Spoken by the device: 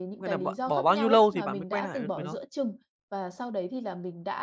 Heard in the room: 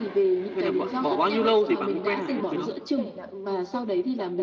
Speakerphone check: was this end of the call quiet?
No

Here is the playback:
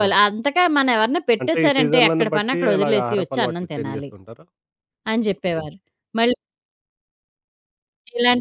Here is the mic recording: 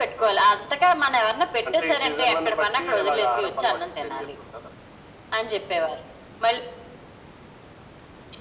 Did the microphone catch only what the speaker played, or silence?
Yes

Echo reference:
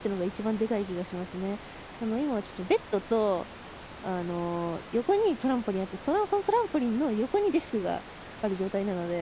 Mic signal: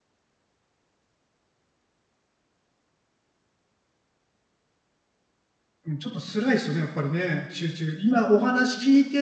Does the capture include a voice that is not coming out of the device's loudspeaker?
Yes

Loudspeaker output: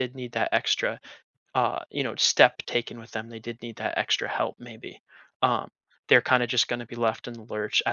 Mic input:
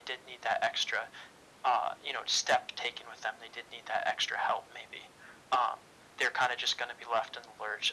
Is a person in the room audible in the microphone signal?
No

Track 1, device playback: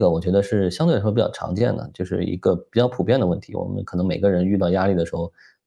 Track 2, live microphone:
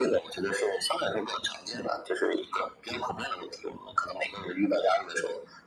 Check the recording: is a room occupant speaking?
No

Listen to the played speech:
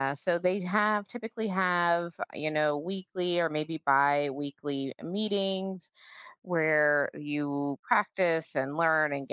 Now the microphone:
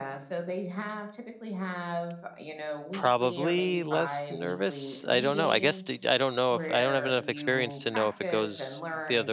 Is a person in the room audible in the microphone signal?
Yes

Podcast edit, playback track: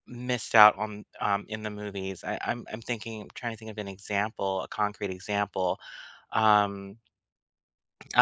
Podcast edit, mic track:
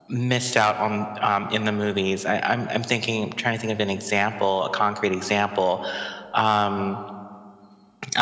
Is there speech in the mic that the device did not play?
No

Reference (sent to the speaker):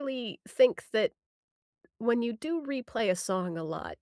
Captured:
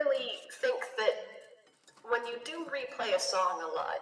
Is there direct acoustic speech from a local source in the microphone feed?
No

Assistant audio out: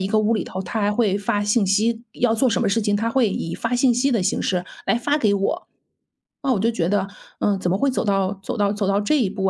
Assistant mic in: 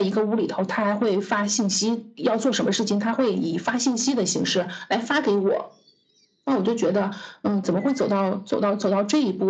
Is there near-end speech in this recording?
No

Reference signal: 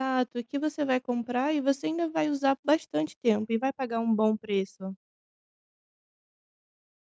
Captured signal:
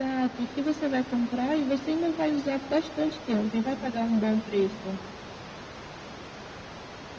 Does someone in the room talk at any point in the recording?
No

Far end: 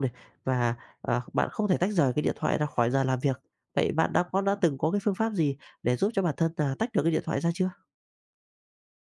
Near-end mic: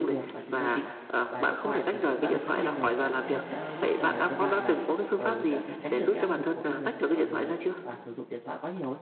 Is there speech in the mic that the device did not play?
Yes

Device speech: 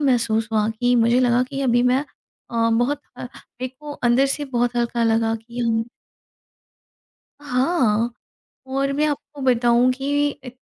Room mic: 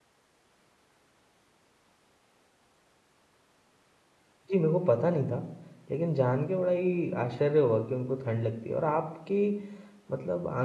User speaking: Yes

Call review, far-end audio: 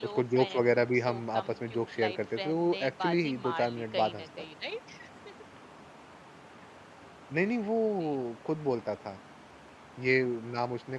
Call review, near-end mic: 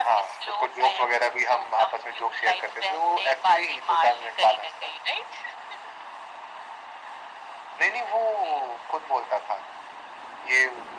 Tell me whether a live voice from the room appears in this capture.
No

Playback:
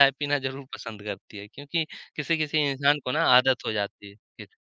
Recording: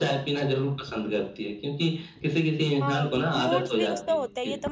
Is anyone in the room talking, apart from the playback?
Yes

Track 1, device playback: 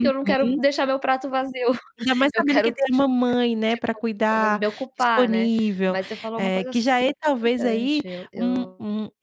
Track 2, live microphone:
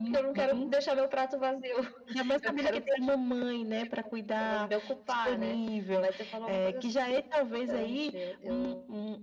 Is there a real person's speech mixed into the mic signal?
No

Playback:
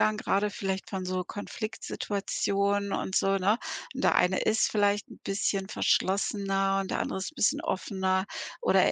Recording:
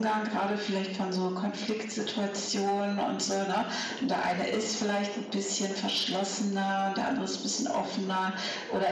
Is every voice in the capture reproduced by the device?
Yes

